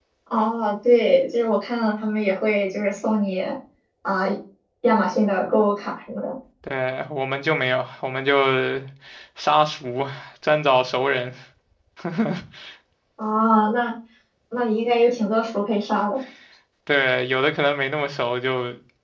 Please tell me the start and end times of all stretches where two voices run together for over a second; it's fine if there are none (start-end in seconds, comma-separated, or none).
none